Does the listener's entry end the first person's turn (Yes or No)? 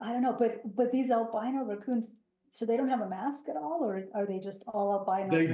Yes